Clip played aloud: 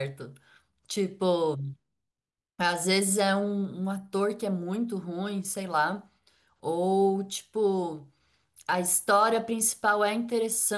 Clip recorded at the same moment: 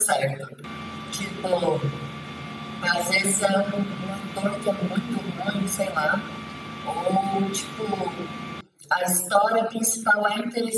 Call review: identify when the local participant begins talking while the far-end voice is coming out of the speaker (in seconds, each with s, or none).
none